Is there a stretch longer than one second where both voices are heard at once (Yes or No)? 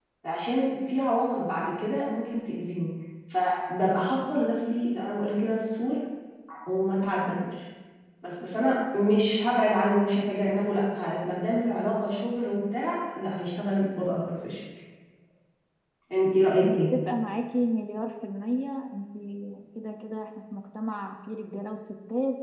No